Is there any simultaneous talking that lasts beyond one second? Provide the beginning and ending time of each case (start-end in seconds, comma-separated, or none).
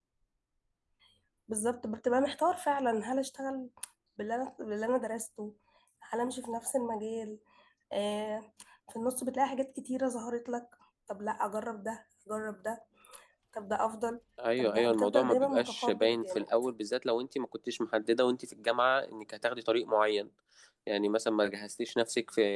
14.6-16.5